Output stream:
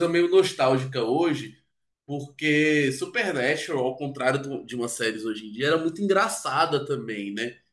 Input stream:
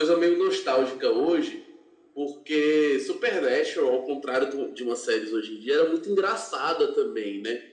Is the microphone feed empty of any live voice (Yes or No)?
Yes